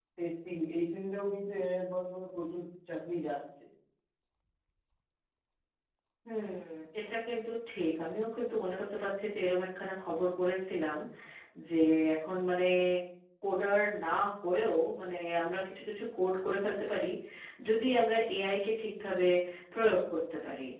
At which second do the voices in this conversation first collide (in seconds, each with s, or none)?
none